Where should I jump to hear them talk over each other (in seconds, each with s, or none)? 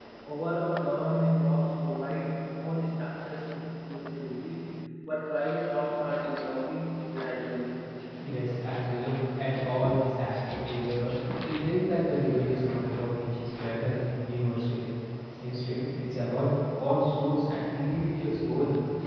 none